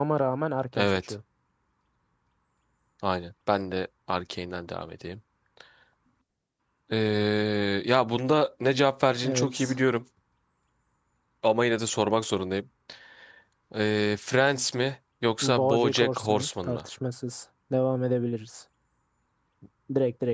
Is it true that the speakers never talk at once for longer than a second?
No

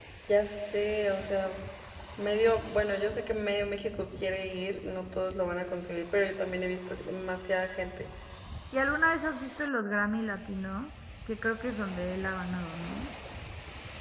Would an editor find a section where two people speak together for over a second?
No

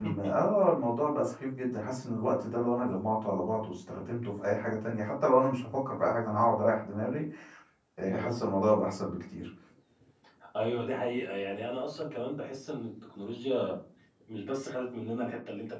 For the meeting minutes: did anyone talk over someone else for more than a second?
No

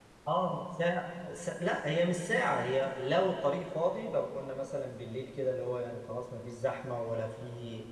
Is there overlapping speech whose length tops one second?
No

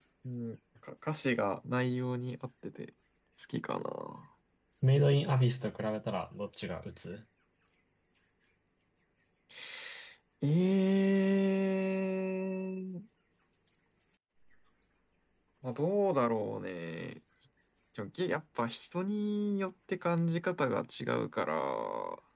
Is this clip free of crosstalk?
Yes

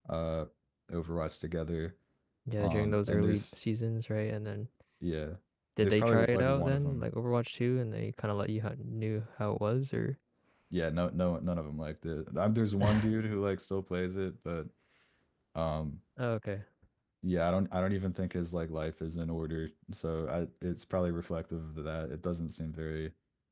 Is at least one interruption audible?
Yes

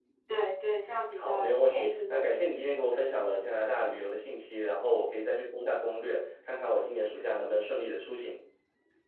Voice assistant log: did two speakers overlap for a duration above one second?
Yes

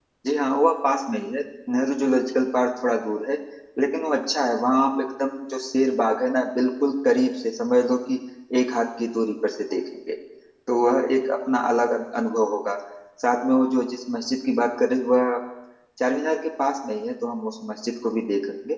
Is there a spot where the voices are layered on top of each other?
No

